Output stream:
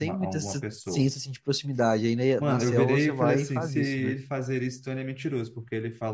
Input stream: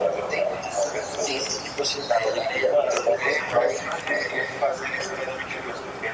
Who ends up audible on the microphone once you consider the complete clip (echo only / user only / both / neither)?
echo only